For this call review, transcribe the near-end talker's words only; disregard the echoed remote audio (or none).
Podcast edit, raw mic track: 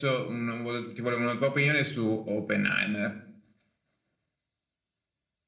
none